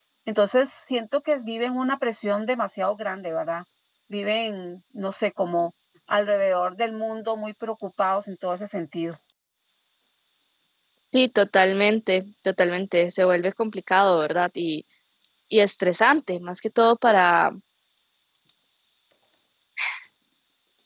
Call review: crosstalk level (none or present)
none